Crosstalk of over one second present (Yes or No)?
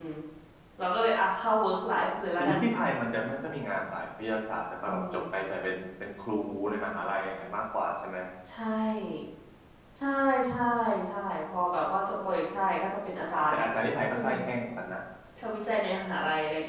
No